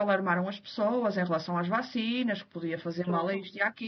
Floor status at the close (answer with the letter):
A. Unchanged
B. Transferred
A